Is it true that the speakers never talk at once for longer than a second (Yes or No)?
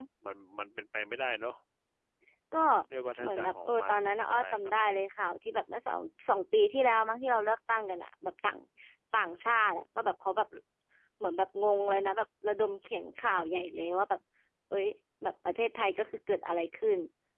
No